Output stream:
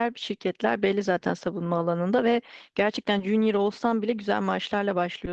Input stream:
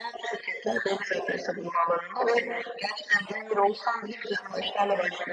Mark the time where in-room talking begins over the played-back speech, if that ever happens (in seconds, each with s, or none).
none